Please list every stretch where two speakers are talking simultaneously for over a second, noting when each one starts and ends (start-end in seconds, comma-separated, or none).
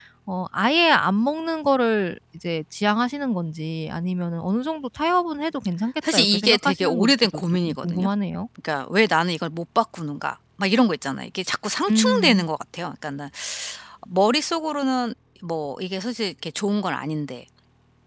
6.1-8.1